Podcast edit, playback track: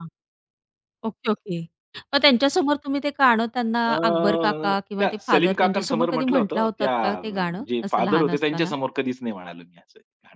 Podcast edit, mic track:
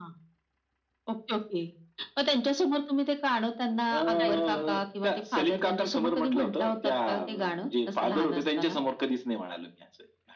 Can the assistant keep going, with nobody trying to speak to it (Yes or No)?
No